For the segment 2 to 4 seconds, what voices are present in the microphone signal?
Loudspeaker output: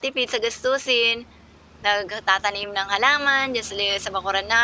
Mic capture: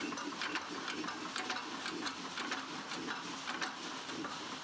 neither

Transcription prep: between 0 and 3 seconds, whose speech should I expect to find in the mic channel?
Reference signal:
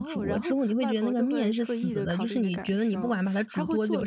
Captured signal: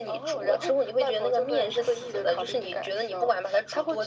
echo only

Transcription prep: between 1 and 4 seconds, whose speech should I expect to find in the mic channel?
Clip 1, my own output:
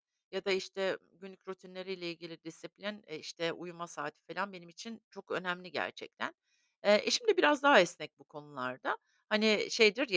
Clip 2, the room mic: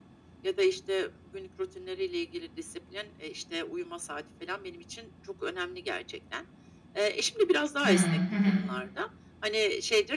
echo only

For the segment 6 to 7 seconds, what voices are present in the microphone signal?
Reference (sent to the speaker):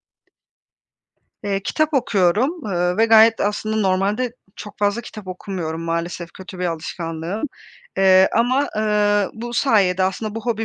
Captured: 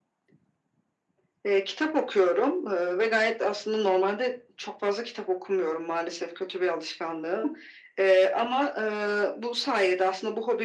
echo only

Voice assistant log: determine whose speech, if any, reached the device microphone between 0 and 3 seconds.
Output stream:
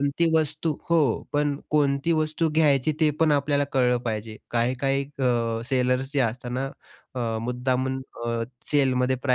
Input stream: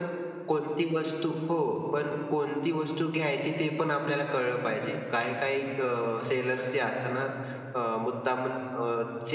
echo only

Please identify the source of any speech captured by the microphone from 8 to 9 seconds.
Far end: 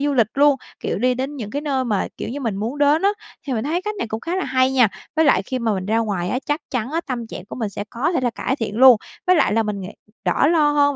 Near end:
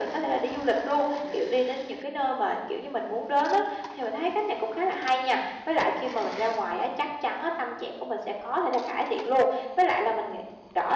echo only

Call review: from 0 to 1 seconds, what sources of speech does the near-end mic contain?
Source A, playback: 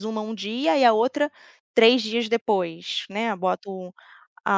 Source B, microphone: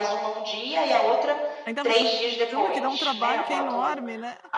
echo only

